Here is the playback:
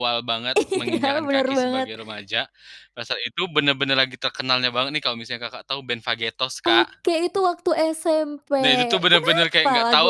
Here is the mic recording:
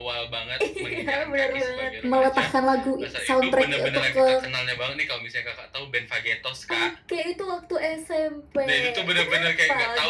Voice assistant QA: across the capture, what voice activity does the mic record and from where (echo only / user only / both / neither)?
both